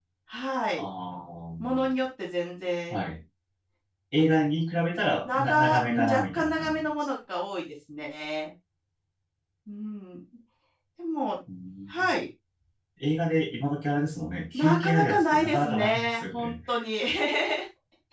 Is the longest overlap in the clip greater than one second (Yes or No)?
Yes